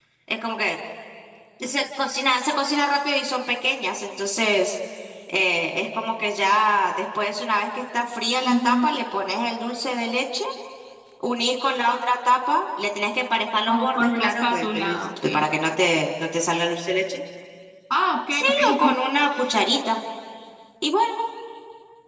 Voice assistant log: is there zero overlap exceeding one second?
No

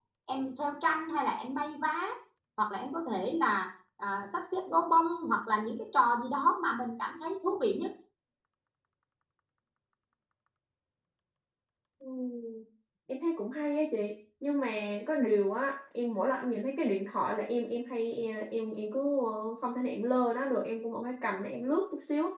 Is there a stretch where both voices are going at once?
No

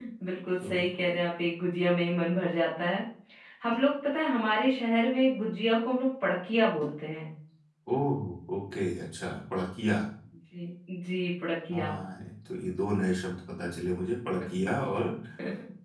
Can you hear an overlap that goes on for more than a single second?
No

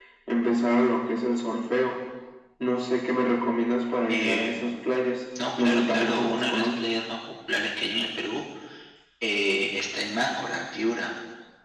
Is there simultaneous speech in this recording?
Yes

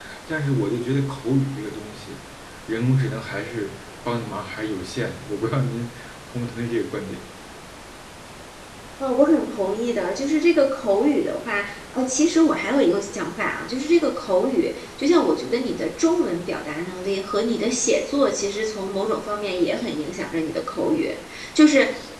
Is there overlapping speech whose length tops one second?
No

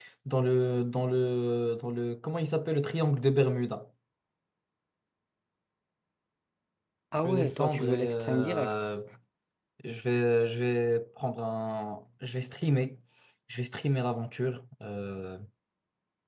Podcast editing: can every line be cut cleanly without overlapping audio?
No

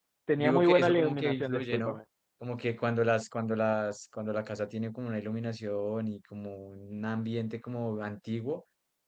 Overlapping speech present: Yes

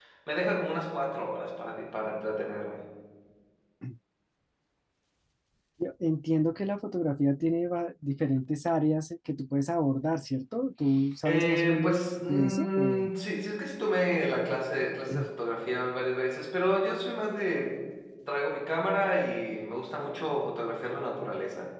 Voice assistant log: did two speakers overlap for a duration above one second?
Yes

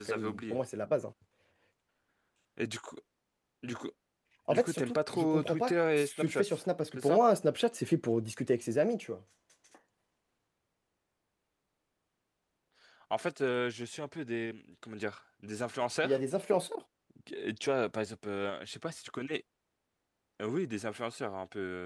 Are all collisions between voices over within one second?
No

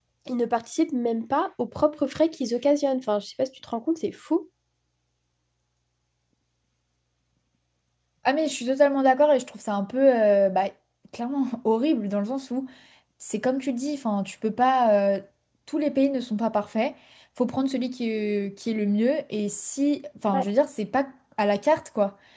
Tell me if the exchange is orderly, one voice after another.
Yes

